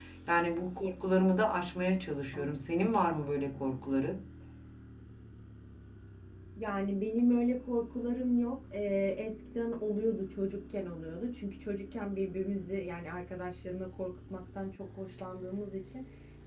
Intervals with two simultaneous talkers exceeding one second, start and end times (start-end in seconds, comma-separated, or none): none